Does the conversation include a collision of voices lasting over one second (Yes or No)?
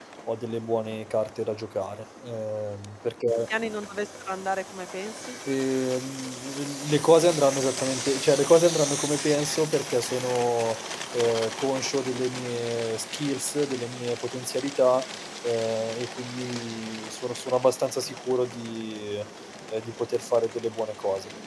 No